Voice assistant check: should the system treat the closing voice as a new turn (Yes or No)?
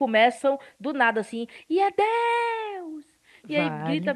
No